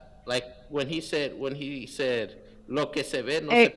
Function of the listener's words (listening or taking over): taking over